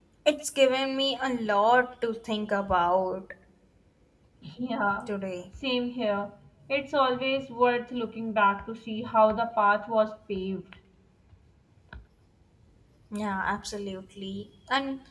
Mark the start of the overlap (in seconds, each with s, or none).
none